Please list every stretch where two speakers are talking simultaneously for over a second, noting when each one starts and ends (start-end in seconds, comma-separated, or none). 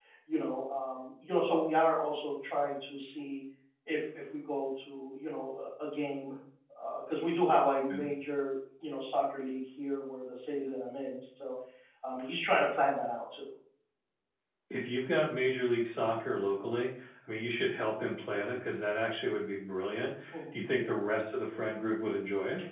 none